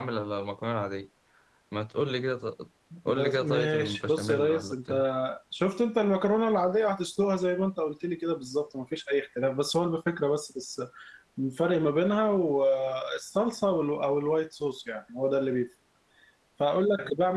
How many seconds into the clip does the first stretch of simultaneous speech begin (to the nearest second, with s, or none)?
3 s